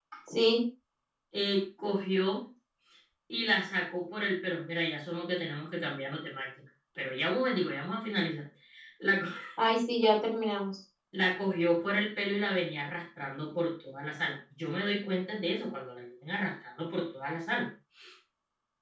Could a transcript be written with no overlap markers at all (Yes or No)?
Yes